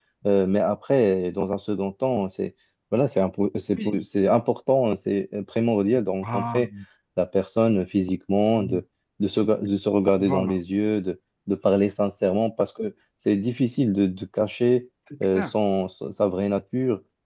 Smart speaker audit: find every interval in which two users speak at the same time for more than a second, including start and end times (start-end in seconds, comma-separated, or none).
none